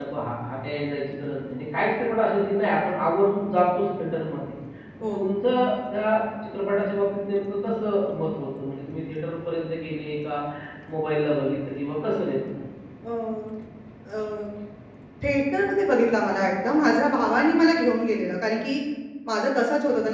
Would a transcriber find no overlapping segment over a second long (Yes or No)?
Yes